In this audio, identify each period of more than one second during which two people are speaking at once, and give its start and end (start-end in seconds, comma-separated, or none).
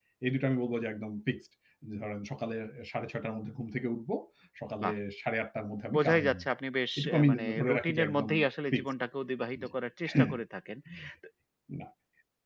7.0-8.3